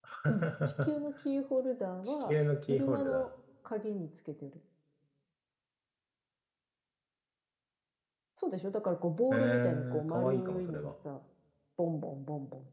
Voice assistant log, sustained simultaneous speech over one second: present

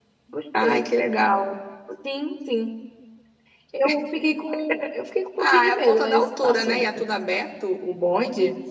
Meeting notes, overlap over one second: present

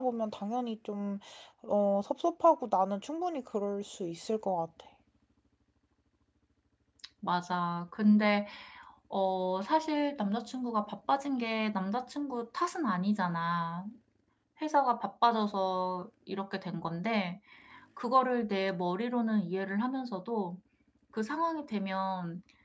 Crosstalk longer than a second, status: none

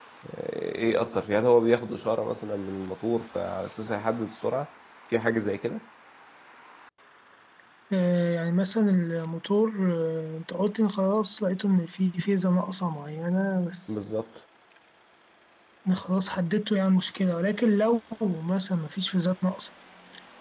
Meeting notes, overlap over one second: none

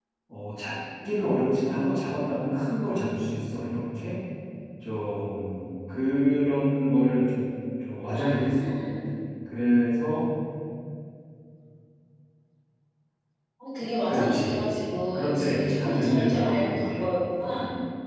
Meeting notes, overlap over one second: present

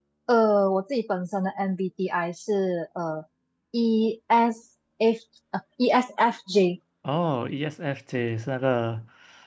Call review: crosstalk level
none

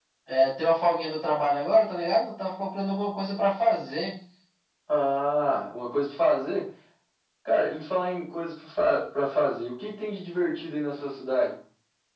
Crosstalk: none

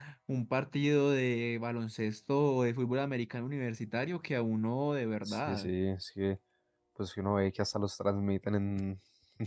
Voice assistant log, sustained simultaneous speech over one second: none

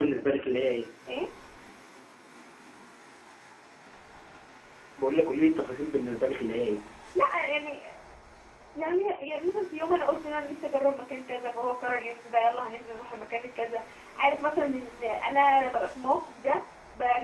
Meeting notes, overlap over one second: none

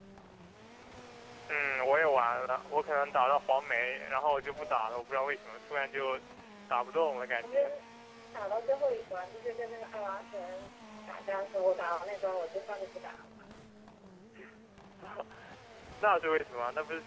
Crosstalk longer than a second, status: none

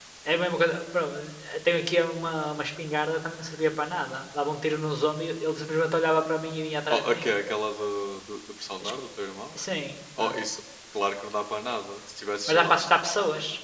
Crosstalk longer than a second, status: none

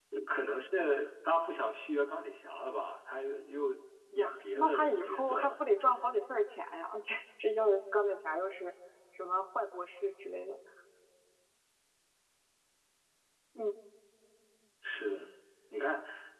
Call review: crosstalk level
present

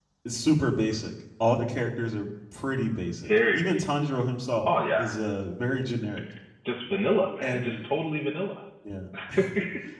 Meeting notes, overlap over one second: none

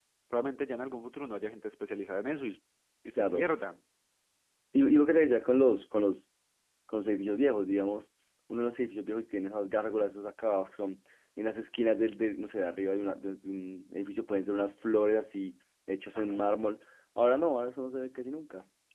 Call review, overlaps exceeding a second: none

